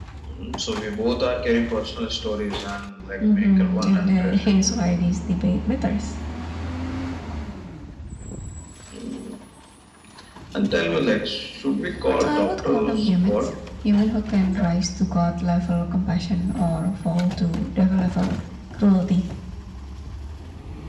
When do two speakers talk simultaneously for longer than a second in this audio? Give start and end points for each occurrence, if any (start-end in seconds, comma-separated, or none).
3.2-4.6, 12.0-13.4